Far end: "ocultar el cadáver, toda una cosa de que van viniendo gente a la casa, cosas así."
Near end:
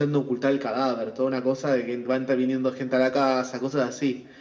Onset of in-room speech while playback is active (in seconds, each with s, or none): none